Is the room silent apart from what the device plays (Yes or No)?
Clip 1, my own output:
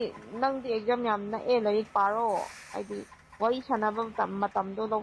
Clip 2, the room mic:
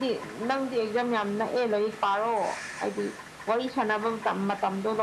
Yes